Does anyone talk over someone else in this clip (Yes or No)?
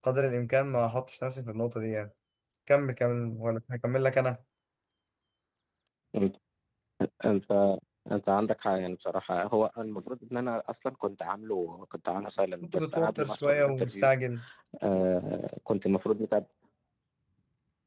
Yes